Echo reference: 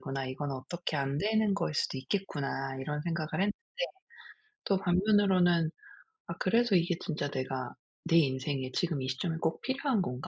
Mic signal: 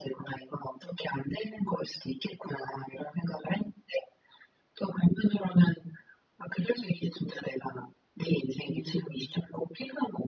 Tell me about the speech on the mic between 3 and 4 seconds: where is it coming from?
echo only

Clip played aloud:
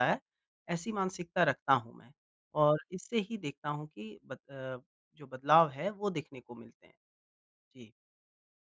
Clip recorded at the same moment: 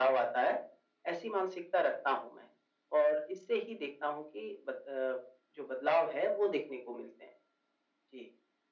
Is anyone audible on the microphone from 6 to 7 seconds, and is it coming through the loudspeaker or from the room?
echo only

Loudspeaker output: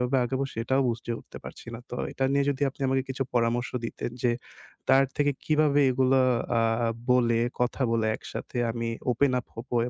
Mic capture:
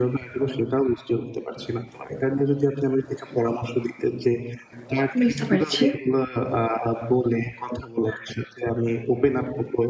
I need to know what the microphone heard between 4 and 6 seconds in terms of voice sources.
both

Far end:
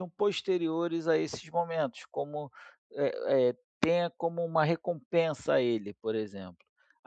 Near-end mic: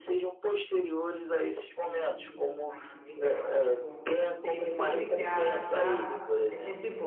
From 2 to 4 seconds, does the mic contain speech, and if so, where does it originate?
both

